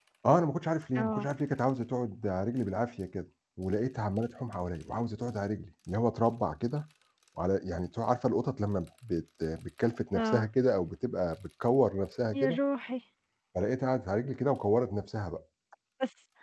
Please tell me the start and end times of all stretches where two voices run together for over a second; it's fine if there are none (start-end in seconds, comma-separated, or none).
none